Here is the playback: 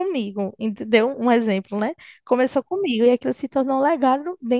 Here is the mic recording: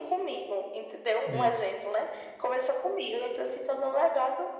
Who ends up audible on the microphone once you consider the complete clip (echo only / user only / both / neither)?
both